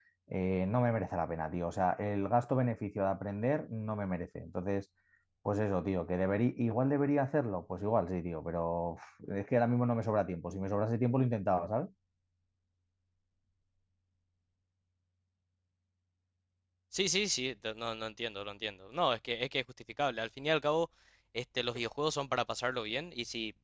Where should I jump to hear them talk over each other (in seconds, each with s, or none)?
none